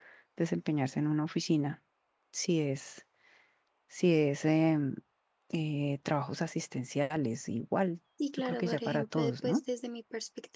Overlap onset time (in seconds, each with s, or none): 8.2 s